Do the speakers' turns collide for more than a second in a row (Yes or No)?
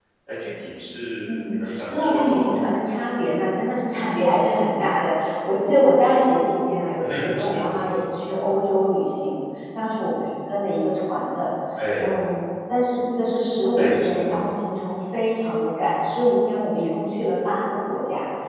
Yes